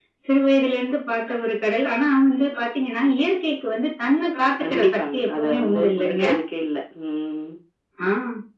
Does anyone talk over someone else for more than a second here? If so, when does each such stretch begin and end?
4.6-6.2

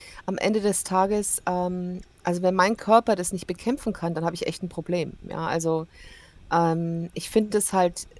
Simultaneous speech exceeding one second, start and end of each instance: none

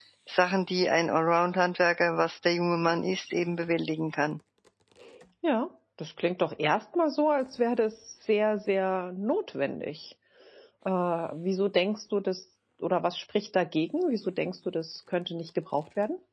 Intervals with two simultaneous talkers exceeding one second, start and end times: none

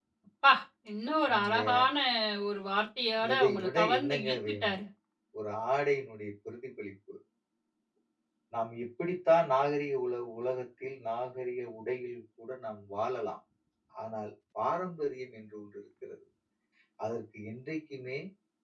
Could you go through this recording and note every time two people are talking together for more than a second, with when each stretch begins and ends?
3.3-4.8

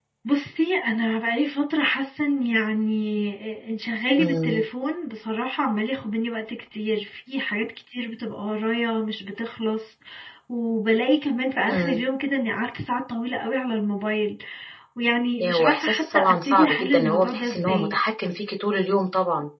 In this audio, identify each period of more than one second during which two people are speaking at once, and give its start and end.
15.4-18.0

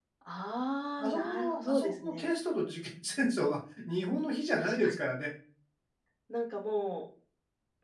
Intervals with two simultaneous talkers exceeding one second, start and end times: 1.0-2.2

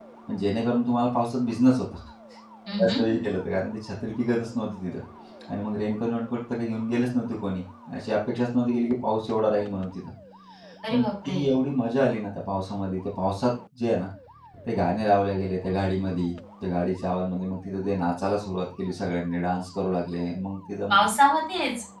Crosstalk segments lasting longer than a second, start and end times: none

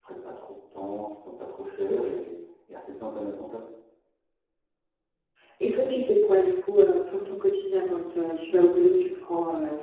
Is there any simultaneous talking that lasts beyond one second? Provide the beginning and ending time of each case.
none

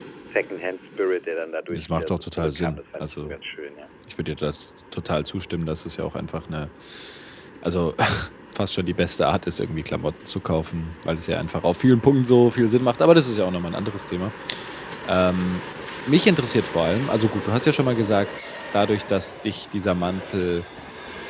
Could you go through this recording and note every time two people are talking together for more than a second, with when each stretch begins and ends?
1.7-3.3

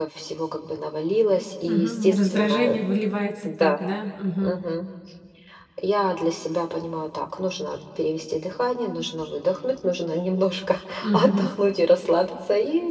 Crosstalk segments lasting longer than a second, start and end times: 1.7-3.0

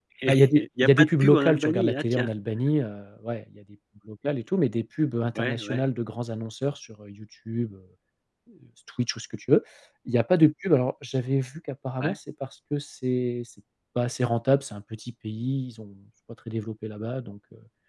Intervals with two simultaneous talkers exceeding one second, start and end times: 0.6-2.3

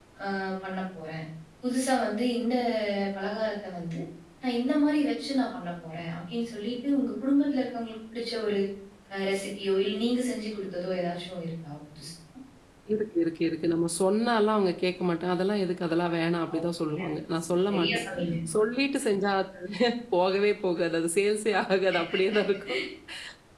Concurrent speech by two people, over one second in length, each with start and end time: none

